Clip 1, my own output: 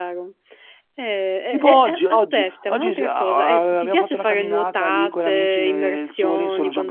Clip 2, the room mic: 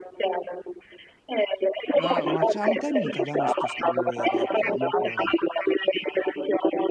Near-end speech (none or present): present